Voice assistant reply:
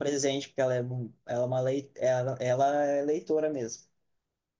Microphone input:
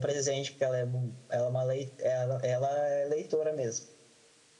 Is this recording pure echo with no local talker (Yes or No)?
Yes